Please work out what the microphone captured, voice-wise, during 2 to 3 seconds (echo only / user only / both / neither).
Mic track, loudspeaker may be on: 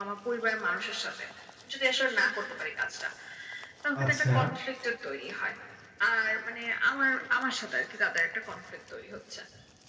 echo only